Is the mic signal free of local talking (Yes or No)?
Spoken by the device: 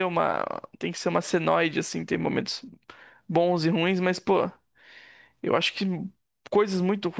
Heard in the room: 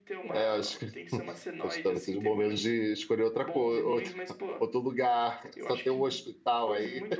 No